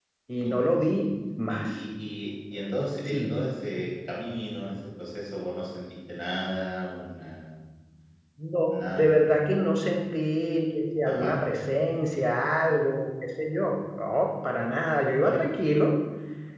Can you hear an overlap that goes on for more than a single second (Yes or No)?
No